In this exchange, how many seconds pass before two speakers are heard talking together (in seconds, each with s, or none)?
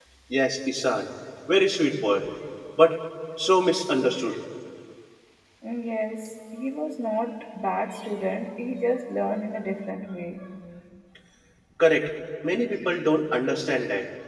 none